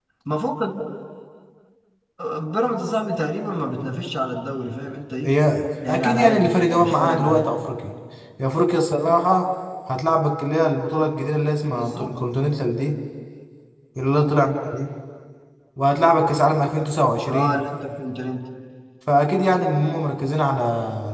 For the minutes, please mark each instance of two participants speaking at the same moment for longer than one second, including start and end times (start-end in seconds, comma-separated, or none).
5.8-7.5